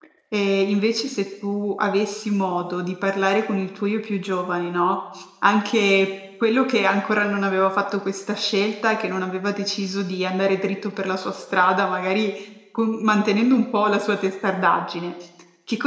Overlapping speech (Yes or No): No